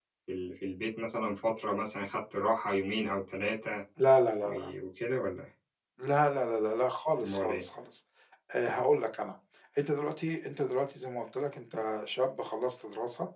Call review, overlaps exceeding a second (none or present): none